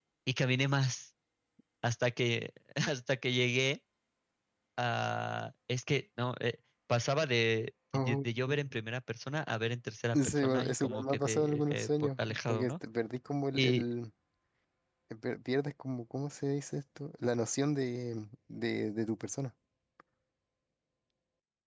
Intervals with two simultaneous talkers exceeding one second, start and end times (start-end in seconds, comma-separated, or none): 10.1-12.7